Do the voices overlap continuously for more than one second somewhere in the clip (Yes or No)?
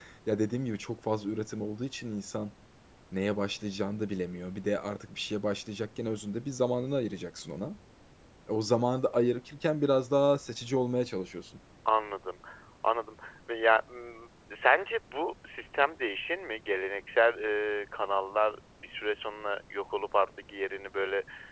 No